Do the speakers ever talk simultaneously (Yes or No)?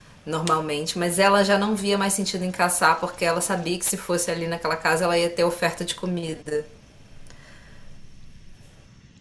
No